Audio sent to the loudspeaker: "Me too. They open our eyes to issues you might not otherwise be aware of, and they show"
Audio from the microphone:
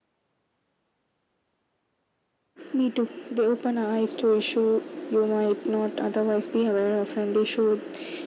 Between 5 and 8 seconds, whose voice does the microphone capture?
echo only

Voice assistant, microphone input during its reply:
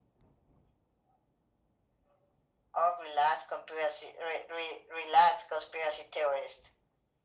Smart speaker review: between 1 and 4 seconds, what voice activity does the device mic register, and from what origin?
echo only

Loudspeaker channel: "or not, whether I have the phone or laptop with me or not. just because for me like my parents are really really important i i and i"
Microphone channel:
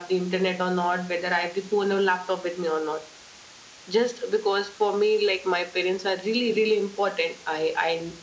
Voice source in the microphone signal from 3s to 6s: echo only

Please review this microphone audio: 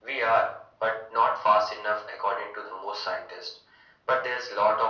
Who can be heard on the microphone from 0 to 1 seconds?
echo only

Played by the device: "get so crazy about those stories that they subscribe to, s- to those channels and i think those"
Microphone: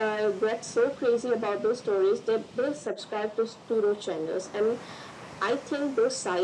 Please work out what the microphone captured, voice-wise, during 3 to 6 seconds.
echo only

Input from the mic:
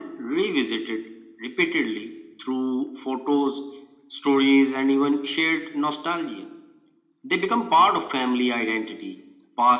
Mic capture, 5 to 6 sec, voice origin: echo only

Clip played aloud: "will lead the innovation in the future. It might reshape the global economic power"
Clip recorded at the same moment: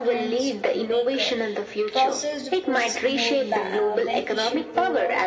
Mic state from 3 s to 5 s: both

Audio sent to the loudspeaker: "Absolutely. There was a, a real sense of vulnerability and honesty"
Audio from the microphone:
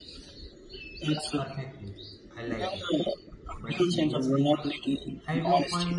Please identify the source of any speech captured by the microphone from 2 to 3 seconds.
both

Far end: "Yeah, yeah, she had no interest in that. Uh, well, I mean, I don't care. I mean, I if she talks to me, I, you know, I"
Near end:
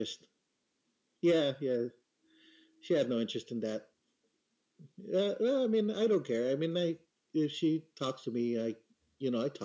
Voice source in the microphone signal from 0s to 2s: echo only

